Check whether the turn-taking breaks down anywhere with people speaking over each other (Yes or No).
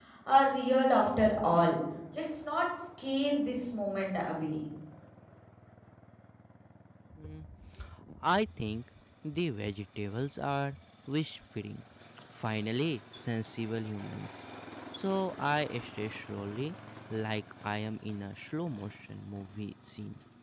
No